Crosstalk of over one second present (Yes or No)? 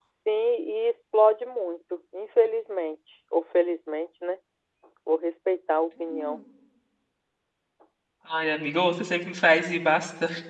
No